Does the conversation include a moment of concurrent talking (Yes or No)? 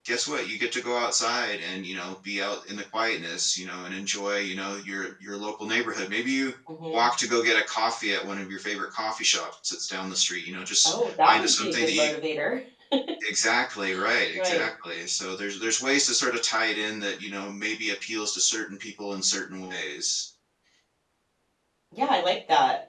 Yes